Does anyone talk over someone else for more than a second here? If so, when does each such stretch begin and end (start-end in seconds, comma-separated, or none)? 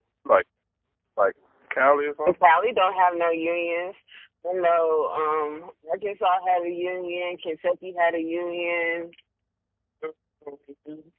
none